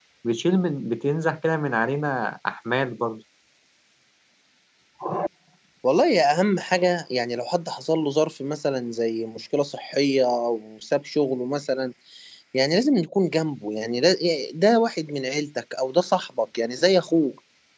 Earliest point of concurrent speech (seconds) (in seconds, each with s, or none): none